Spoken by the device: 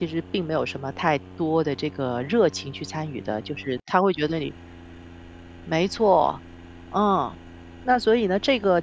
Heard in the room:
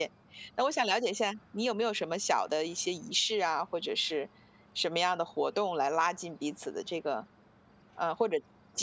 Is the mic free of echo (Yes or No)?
Yes